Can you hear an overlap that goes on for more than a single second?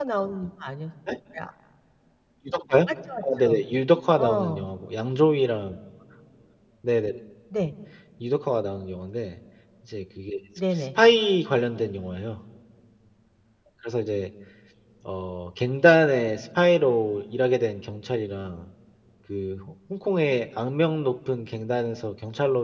No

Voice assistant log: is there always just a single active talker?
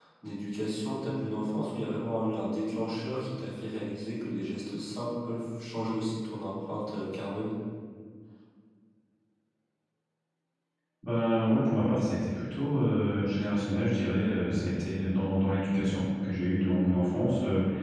Yes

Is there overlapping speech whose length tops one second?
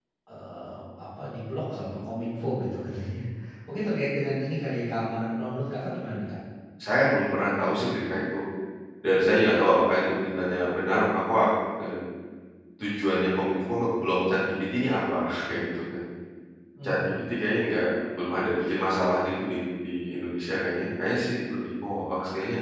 No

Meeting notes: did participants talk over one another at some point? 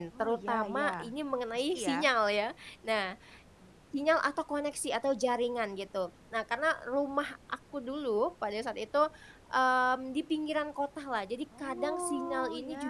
Yes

